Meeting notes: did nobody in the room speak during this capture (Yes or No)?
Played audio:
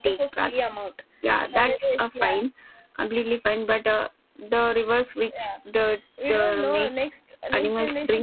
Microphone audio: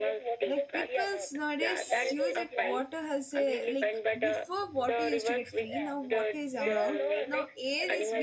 No